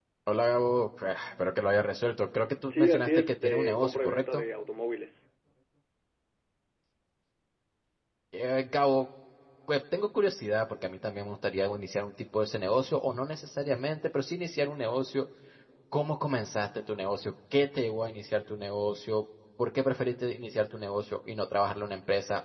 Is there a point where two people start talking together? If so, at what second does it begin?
2.7 s

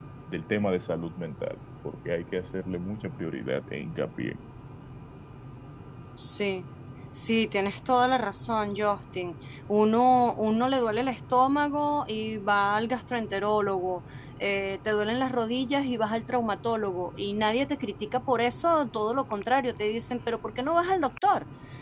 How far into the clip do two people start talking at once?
none

